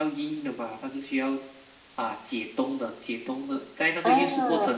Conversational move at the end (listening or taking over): listening